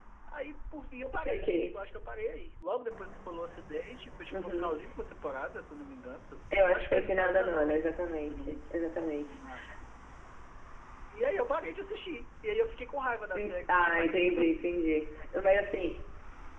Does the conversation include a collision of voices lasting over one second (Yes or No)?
Yes